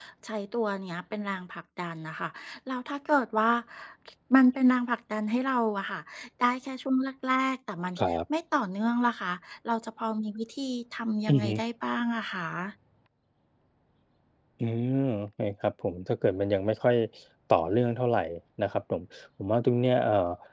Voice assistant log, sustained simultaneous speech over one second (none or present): none